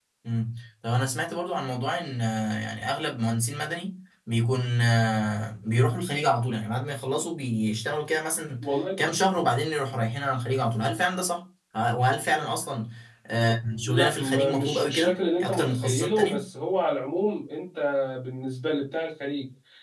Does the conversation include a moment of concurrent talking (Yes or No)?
Yes